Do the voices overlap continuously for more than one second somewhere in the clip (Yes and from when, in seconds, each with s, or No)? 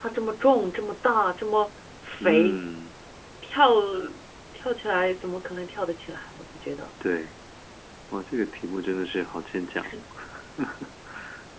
No